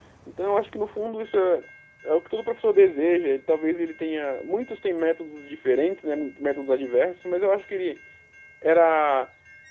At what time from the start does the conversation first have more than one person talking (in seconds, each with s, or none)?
none